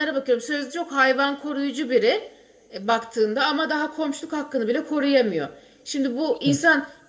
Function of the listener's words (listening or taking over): listening